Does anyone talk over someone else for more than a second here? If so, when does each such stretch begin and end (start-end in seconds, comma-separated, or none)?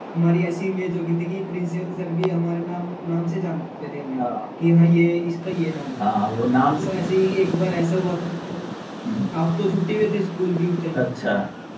none